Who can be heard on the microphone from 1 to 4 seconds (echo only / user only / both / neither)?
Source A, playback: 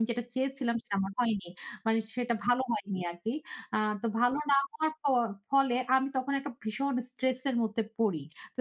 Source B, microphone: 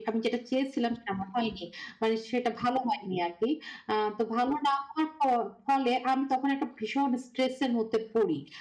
echo only